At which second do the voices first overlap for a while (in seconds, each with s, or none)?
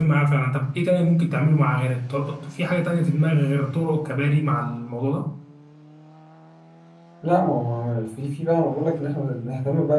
none